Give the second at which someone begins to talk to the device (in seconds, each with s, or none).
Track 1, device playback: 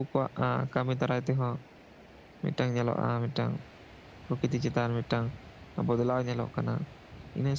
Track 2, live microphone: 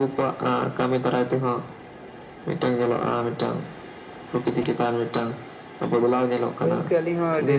6.6 s